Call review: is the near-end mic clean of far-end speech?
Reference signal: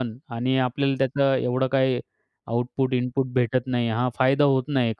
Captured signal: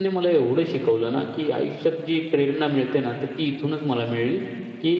Yes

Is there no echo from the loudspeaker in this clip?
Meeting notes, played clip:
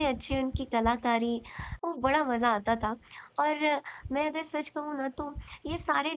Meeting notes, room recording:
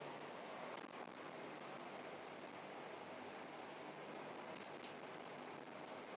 Yes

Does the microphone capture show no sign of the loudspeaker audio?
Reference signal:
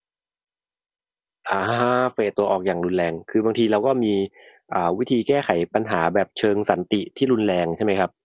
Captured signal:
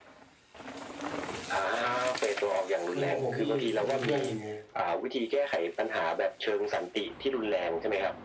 No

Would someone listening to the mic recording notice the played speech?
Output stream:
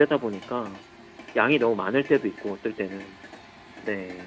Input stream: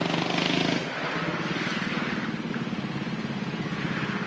No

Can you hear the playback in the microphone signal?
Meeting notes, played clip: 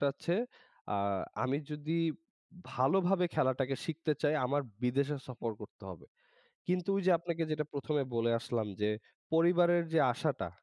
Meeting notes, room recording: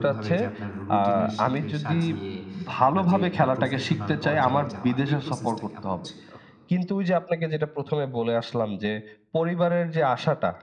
Yes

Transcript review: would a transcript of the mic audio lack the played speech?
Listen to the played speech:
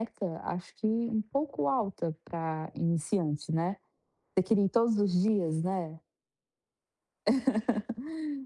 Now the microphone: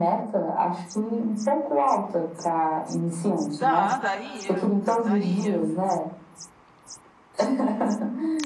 No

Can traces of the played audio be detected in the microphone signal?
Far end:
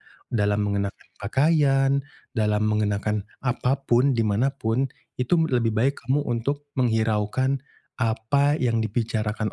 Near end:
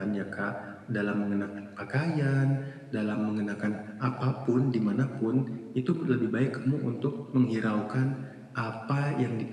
Yes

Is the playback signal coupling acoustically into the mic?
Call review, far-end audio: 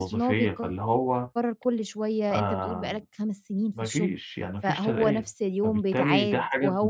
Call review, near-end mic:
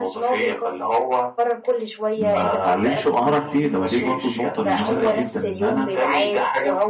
Yes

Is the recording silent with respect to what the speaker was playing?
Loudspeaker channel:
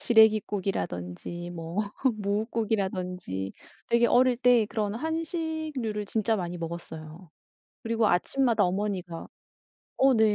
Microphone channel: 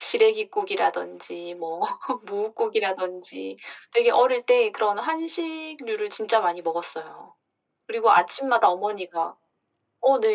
No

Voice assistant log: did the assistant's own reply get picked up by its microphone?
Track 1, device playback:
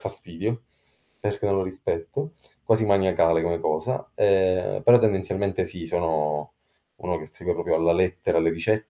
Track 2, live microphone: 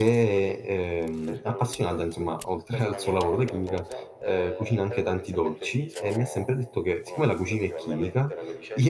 Yes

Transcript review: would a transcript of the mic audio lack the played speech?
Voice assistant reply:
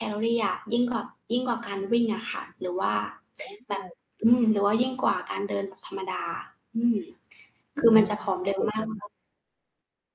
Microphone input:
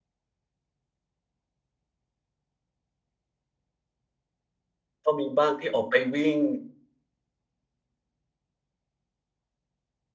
Yes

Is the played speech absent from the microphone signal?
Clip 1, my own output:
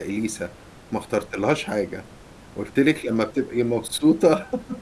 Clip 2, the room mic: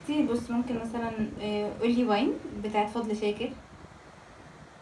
Yes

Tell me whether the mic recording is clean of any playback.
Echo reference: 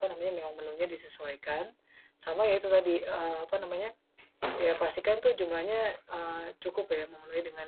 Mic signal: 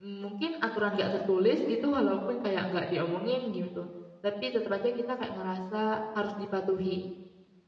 Yes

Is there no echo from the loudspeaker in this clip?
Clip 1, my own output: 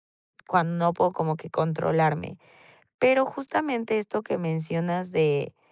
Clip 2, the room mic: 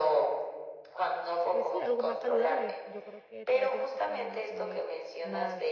No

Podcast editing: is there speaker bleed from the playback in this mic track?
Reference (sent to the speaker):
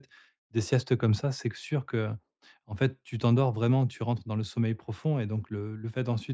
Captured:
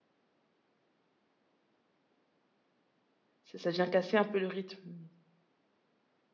No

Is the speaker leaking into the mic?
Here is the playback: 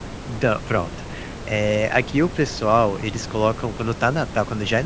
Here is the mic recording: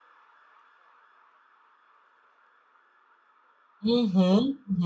No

